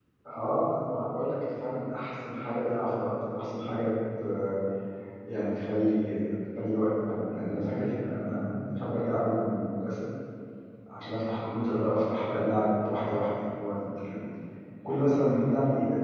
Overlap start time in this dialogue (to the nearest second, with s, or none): none